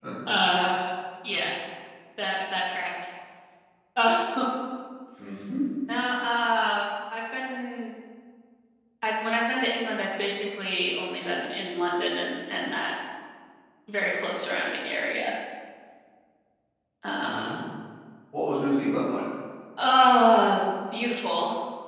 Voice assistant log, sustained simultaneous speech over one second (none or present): none